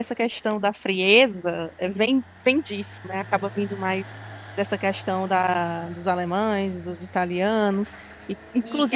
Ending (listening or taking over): taking over